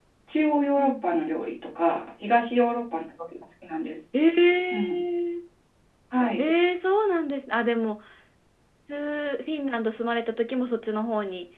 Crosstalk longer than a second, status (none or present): none